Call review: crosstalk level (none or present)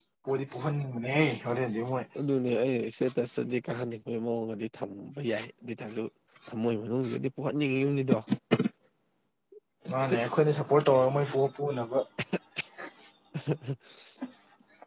none